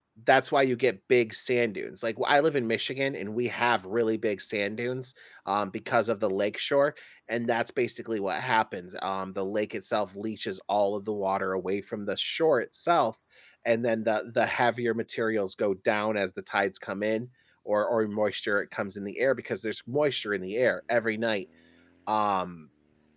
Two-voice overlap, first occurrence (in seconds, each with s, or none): none